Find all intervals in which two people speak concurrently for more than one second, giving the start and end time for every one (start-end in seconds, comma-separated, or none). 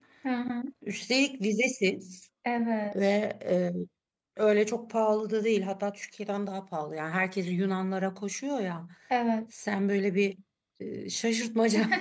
none